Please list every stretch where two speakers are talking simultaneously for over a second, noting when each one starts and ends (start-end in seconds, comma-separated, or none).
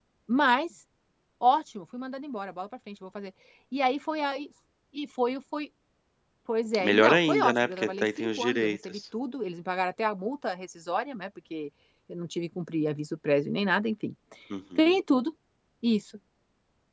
6.8-9.0